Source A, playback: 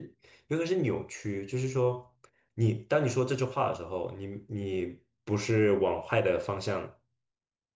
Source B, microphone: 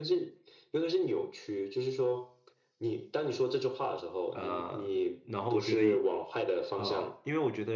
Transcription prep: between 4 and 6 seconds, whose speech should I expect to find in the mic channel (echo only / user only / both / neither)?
both